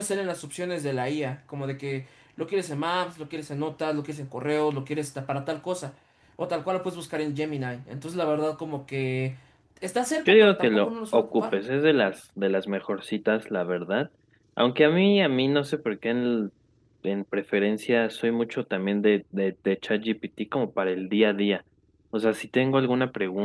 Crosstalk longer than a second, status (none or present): present